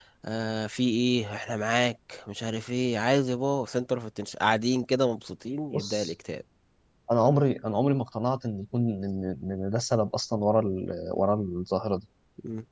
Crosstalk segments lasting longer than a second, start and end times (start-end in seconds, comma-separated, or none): none